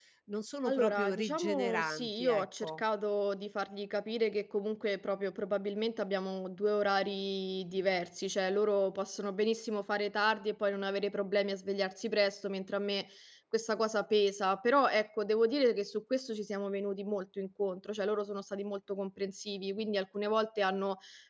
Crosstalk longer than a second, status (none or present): present